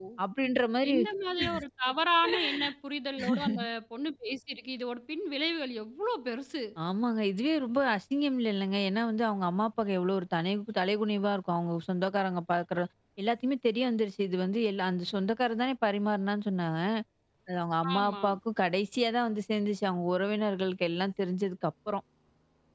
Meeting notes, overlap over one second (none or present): none